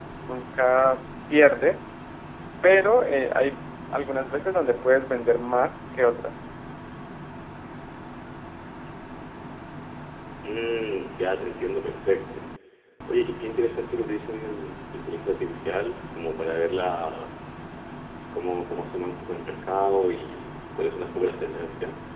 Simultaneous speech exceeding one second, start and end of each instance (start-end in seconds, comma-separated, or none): none